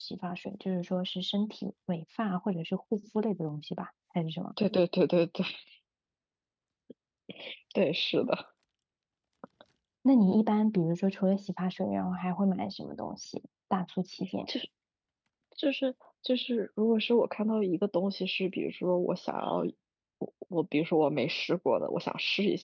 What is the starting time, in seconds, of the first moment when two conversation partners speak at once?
none

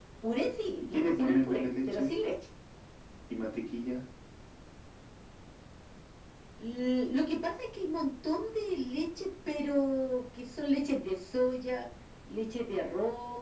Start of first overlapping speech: 0.8 s

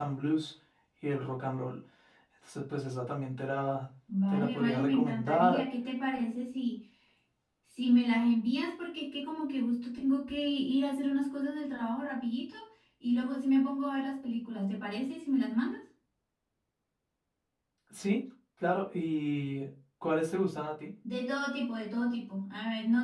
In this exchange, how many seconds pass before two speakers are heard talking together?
4.3 s

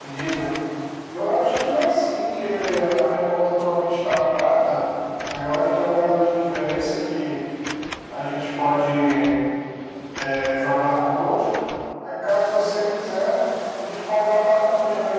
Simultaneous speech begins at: none

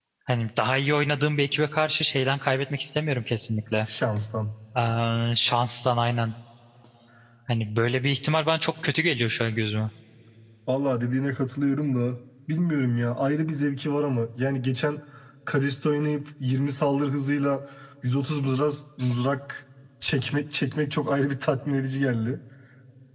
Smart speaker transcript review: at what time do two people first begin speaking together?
none

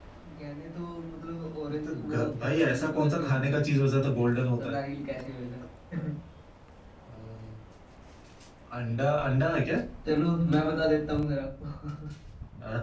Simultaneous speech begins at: 1.7 s

